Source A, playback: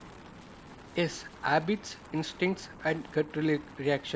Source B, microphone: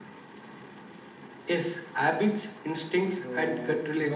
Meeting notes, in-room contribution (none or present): present